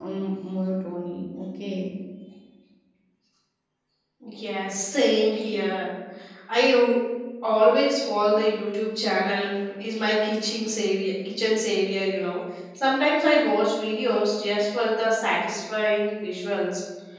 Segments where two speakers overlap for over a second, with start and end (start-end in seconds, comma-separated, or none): none